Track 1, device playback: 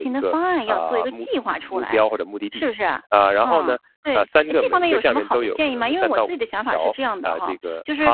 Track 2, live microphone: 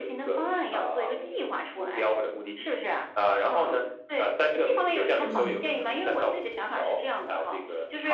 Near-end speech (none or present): present